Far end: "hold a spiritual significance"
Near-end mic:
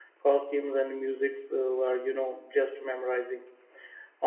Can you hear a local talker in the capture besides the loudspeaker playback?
Yes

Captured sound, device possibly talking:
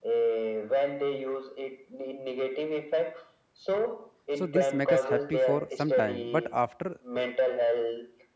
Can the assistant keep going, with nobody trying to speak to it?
No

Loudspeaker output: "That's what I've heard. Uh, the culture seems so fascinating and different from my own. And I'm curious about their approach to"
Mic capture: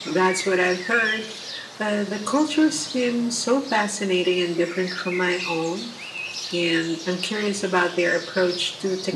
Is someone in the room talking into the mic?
No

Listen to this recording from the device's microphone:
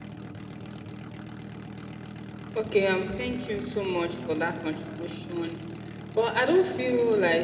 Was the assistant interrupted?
Yes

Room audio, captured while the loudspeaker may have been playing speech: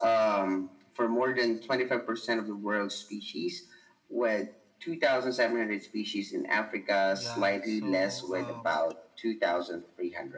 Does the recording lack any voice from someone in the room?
No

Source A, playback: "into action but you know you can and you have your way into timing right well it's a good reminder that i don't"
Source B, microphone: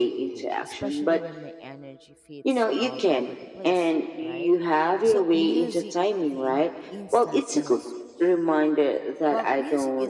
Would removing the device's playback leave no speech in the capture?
No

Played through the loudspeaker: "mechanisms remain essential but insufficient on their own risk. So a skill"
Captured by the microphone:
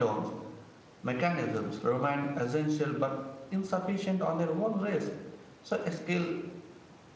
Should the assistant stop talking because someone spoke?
No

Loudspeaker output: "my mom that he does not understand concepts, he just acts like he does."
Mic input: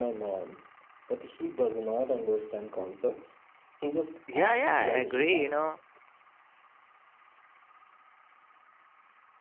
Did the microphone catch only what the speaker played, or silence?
No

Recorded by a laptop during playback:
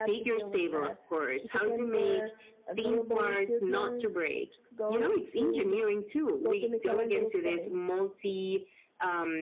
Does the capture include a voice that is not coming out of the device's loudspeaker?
Yes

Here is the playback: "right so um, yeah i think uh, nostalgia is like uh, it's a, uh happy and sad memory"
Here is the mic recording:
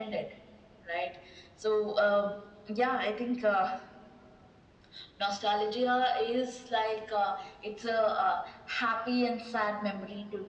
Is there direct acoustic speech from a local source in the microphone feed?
No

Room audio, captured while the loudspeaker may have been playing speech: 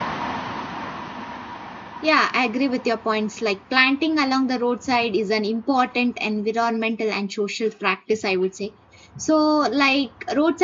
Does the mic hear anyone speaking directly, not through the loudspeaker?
Yes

